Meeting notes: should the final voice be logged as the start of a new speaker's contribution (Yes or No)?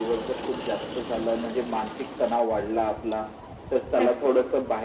No